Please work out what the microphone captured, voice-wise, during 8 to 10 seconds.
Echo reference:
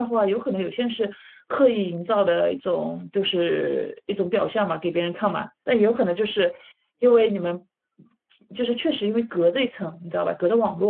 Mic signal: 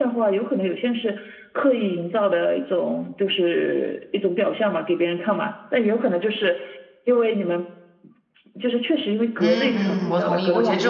both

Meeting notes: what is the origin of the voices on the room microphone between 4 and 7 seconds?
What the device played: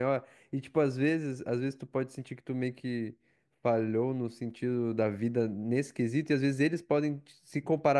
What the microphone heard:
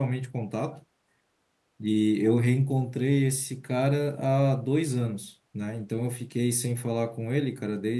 user only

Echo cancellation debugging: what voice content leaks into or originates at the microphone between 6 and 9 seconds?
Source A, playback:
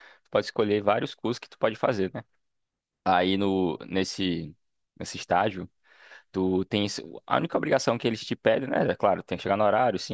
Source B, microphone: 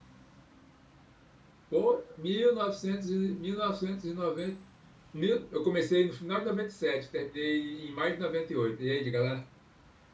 user only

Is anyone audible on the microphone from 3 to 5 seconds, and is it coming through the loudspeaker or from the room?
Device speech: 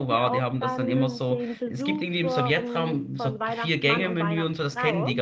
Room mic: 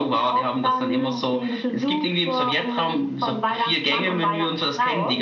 both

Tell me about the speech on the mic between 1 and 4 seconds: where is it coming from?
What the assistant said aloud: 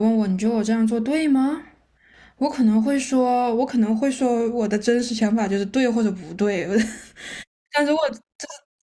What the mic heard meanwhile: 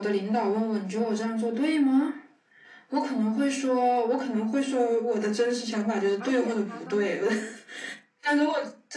echo only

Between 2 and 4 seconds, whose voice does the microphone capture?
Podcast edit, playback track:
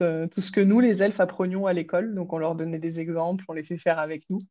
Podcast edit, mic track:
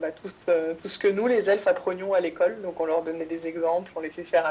echo only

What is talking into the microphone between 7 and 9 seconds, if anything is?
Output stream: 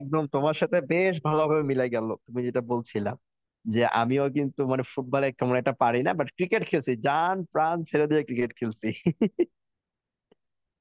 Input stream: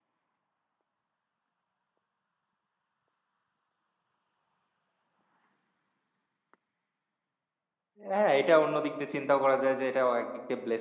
user only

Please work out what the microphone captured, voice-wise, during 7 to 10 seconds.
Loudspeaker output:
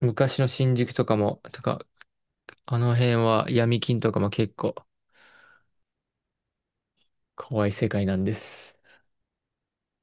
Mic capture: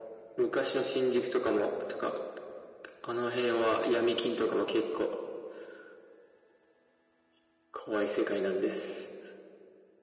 echo only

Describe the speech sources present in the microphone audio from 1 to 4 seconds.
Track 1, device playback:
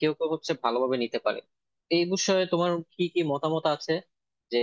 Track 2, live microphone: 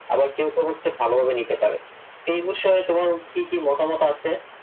echo only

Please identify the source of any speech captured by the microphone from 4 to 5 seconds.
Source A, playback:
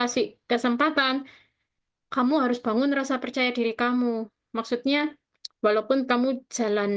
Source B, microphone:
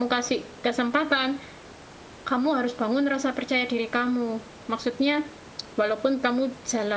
echo only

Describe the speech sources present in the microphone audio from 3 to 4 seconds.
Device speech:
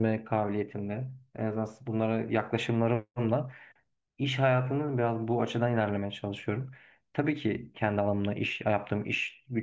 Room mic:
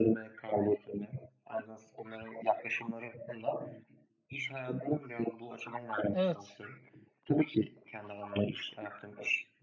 echo only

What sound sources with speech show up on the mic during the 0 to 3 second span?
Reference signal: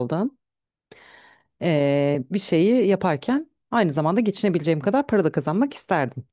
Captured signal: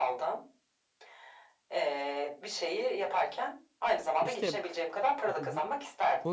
echo only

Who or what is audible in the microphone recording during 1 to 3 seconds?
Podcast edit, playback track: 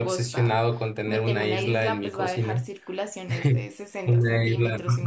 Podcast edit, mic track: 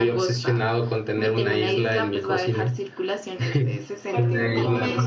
echo only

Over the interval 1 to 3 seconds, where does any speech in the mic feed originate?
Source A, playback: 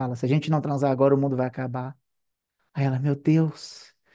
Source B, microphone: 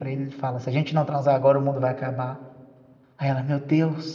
echo only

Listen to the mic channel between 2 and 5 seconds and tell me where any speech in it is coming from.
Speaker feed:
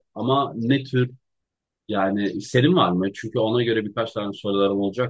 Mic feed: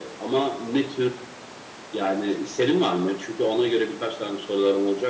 echo only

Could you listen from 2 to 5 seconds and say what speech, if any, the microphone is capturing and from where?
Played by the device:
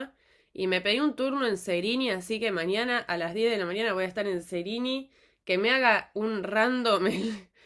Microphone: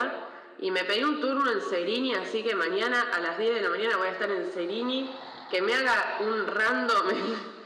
echo only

